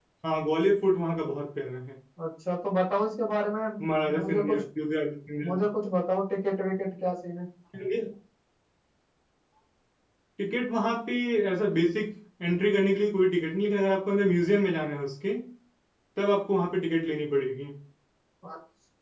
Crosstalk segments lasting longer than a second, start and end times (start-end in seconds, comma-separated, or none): none